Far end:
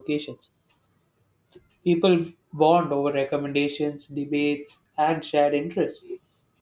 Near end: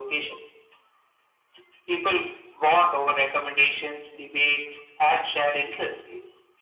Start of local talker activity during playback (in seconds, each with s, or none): none